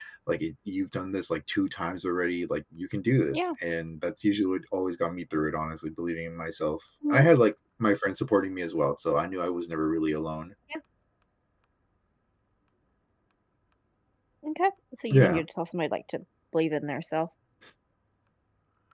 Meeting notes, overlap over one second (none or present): none